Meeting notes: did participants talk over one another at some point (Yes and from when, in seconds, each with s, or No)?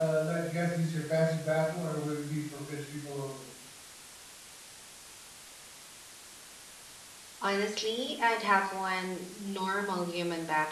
No